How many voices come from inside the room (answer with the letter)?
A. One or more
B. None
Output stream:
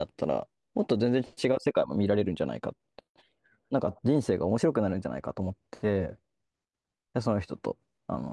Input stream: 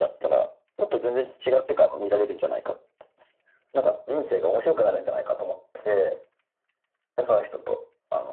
B